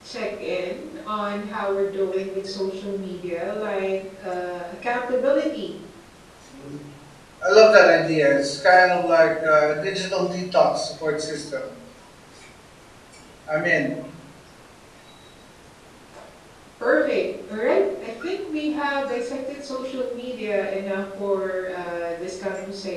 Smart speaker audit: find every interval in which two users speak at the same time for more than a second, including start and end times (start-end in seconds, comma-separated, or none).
none